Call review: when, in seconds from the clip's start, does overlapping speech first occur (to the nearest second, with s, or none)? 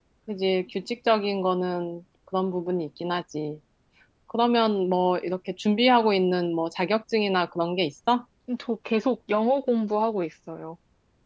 none